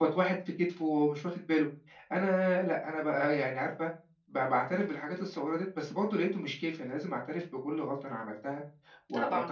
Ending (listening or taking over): listening